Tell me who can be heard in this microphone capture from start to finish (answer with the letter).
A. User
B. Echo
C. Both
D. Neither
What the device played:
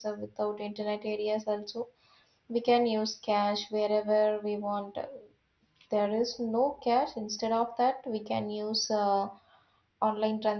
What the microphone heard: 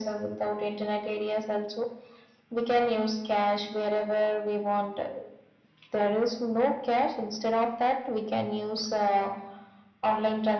B